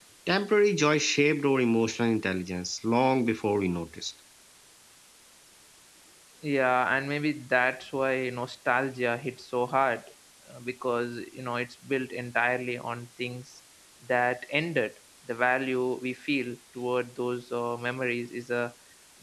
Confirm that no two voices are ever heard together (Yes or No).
Yes